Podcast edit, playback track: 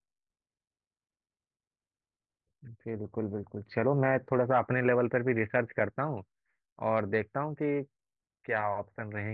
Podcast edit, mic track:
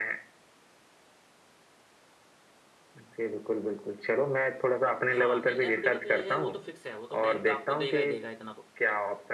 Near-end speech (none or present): present